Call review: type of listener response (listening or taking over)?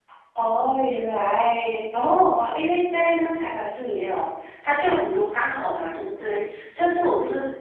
listening